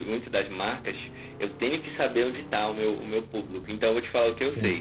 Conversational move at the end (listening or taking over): listening